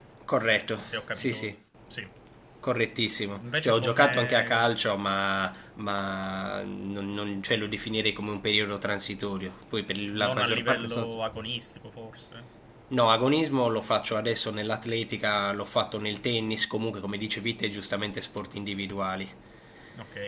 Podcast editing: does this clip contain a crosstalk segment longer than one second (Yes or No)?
Yes